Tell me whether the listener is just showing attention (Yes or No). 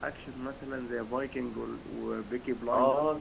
No